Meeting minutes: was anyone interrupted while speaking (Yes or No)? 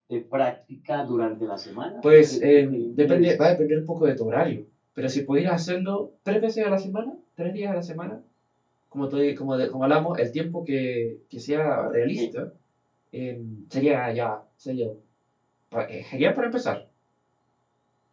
Yes